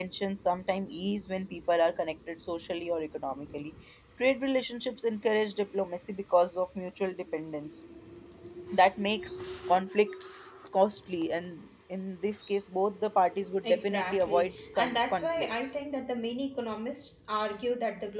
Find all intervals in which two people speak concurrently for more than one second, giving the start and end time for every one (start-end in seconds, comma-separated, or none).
13.6-15.7